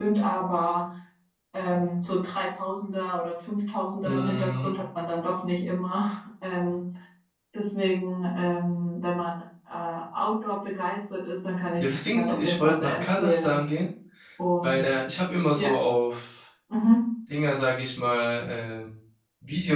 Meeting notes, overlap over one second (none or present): present